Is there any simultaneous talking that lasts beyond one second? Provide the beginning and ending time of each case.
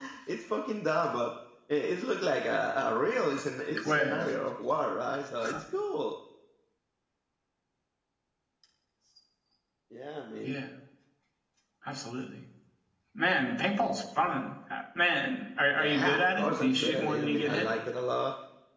15.8-17.7

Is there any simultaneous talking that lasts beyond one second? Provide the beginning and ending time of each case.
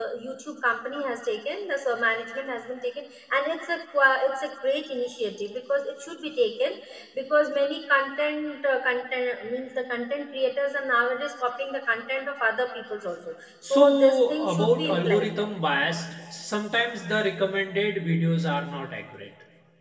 13.6-15.3

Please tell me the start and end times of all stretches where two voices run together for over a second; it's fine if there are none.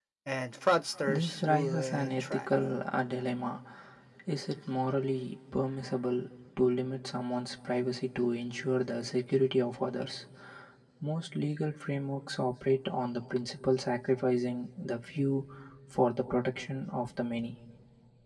1.1-2.5

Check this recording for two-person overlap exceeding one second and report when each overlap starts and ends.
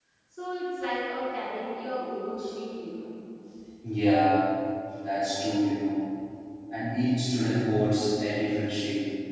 none

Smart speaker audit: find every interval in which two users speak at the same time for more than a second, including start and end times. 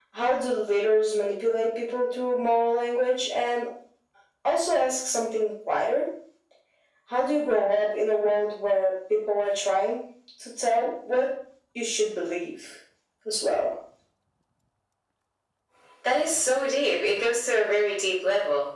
none

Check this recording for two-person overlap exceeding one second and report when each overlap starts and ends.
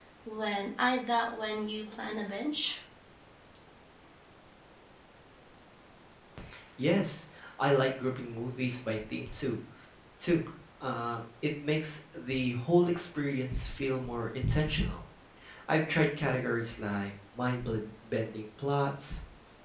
none

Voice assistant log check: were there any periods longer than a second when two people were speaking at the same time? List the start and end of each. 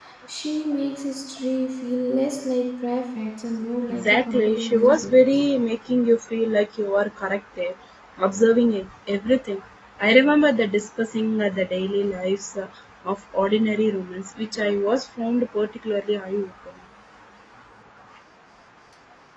3.9-5.1

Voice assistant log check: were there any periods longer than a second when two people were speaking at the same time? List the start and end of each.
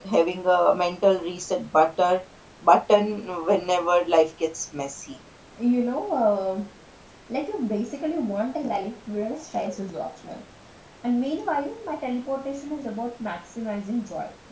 none

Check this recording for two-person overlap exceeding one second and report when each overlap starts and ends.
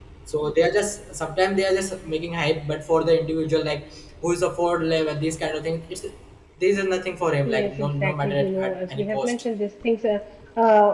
7.5-9.3

